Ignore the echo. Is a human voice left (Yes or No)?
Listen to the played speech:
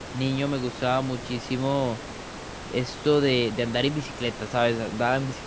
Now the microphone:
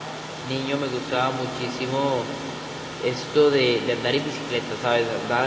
No